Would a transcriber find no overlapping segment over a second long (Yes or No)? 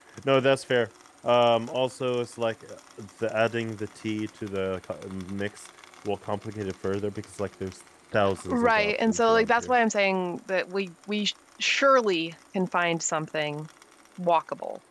No